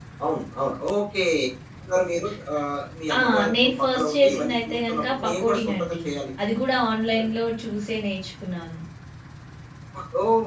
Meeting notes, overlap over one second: present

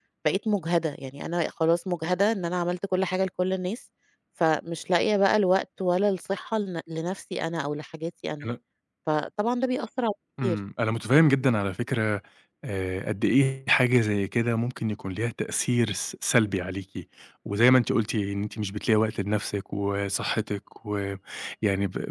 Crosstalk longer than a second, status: none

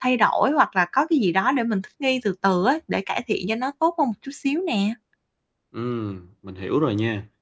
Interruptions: none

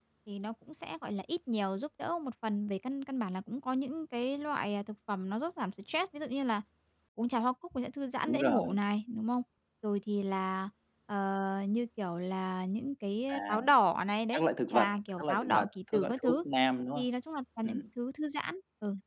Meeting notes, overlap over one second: present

